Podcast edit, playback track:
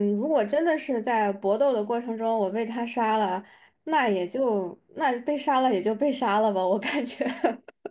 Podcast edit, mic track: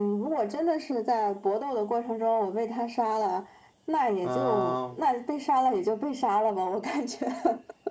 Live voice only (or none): 嗯，